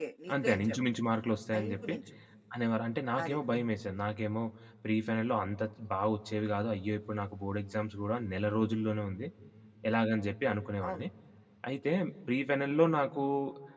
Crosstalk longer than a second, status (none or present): none